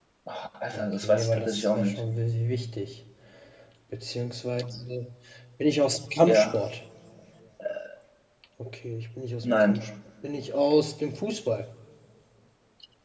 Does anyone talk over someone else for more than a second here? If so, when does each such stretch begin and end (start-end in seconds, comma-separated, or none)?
0.7-2.0